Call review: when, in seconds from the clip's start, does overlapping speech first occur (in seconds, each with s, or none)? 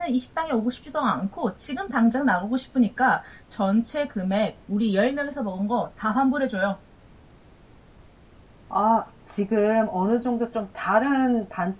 none